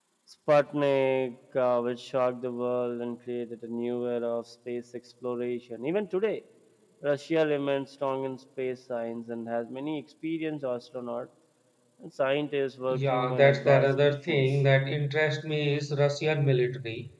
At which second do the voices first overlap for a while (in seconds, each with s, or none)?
12.9 s